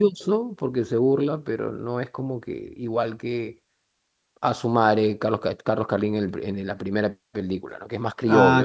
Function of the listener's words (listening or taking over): taking over